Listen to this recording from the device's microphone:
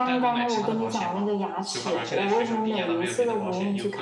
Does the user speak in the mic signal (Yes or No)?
Yes